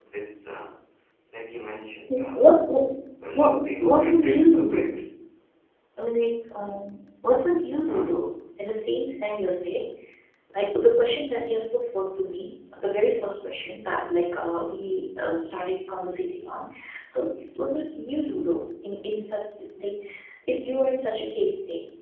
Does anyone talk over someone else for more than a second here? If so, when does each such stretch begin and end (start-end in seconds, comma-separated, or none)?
3.3-4.9